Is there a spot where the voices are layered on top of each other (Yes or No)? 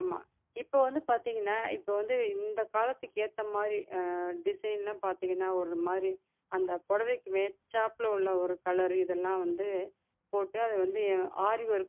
No